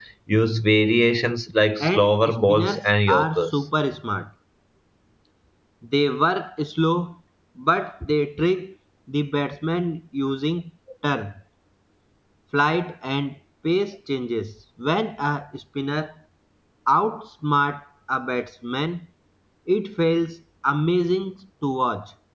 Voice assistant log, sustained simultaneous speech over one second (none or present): present